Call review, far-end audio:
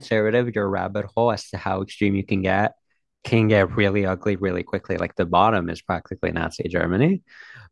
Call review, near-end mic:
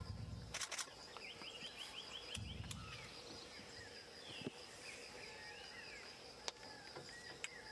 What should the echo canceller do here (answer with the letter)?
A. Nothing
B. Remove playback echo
A